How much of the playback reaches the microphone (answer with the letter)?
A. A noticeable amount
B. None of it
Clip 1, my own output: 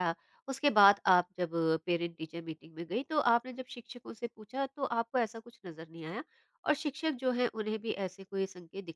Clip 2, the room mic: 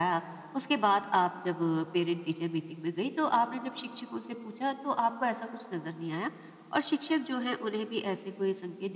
A